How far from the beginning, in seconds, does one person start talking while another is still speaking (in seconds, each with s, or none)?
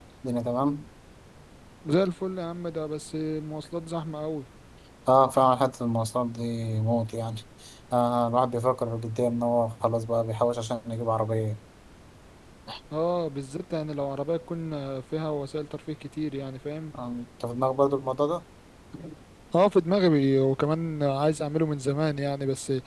none